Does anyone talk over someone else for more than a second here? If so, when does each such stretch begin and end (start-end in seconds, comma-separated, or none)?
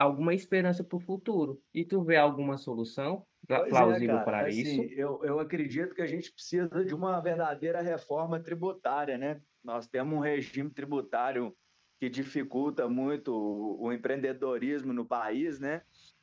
3.6-4.9